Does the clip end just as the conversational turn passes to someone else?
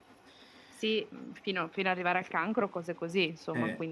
Yes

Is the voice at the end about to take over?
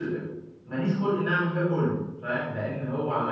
No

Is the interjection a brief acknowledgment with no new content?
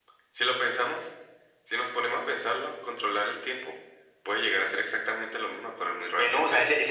No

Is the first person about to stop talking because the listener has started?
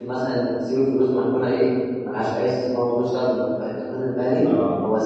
No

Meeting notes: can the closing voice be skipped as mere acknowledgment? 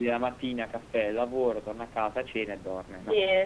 No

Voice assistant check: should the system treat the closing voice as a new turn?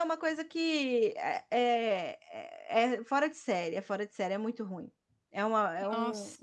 No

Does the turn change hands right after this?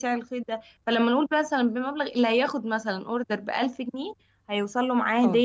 No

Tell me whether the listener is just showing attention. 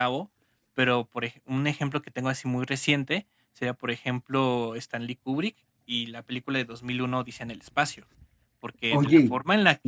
Yes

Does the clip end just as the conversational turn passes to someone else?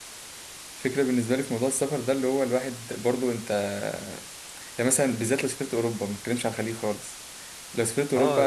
No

